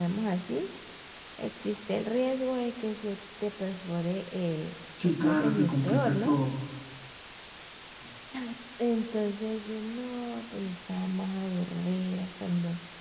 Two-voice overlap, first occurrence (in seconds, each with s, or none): 5.0 s